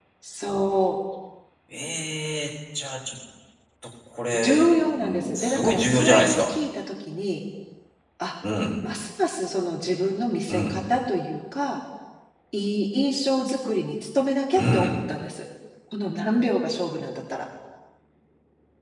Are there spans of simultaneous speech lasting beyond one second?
Yes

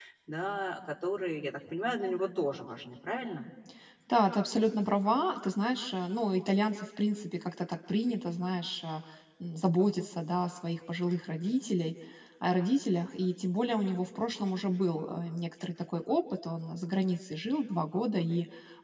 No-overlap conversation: Yes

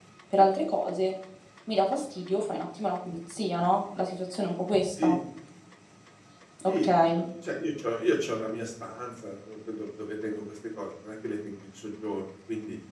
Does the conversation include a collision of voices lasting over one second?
No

